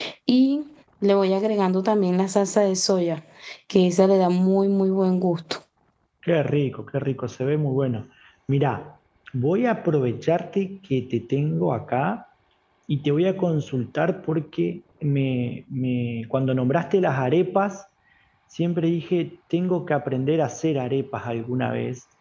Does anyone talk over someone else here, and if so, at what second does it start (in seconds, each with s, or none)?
none